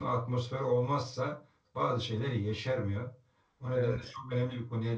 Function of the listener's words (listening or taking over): listening